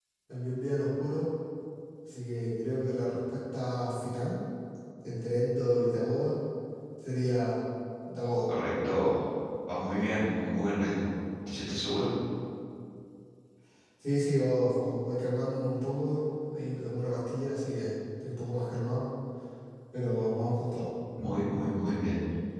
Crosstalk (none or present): none